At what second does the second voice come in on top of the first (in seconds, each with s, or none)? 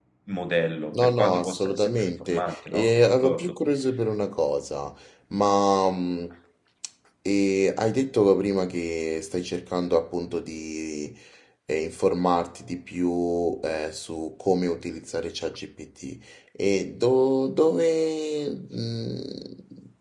0.9 s